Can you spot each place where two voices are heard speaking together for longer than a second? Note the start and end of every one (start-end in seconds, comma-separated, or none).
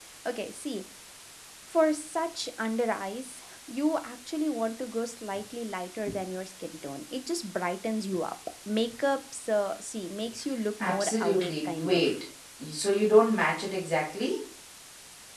10.8-12.2